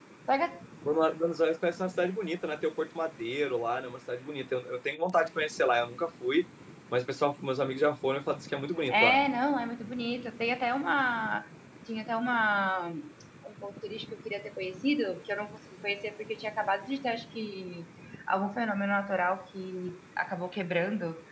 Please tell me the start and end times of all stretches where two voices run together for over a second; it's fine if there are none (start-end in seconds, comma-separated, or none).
none